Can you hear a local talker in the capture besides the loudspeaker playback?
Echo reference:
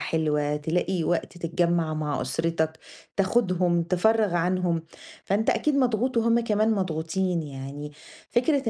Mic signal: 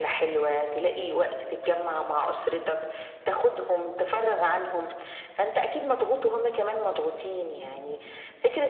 No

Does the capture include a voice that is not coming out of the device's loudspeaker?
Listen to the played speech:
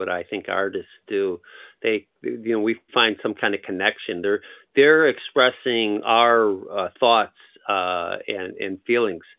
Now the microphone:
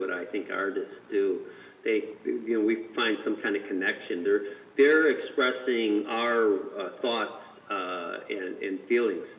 No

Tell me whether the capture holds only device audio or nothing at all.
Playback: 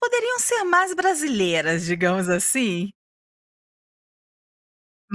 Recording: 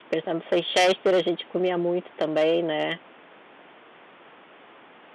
No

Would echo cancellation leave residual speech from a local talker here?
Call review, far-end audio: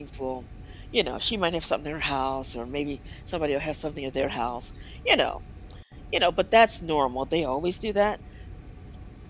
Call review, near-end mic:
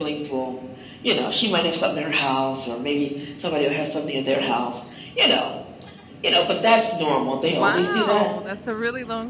Yes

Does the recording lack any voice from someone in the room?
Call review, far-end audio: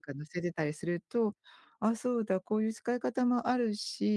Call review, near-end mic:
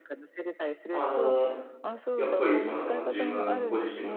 No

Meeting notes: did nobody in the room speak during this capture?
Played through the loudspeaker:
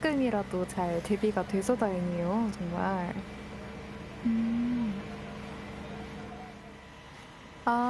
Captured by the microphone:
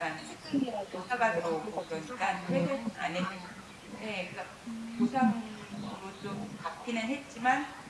No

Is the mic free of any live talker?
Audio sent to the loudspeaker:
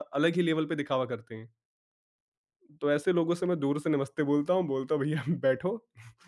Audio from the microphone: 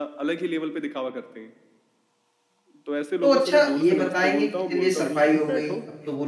No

